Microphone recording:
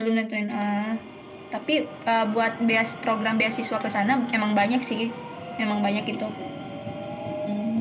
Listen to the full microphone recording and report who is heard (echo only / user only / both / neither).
echo only